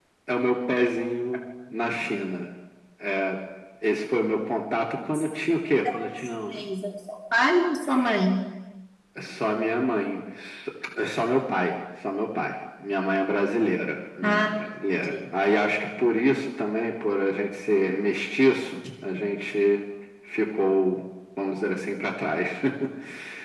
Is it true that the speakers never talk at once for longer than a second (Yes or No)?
Yes